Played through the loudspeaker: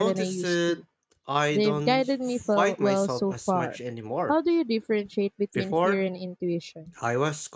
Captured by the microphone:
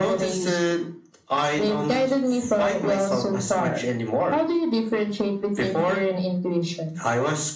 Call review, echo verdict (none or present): present